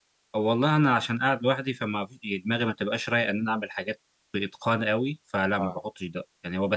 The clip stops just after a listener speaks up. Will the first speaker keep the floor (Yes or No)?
Yes